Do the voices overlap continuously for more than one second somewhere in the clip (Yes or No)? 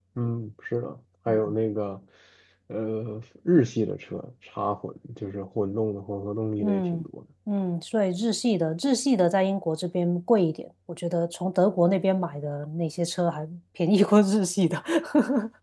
No